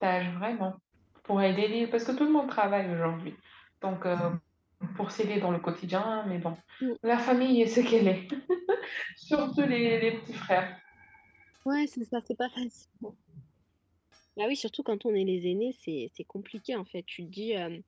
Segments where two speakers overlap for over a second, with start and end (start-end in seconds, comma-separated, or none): none